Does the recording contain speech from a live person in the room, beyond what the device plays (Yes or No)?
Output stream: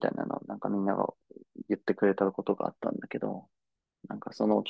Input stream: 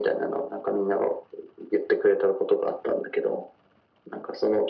No